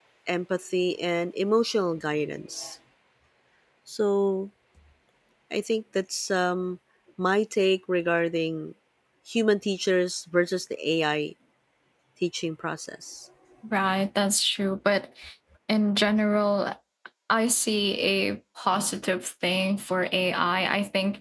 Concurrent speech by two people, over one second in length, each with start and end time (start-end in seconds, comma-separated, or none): none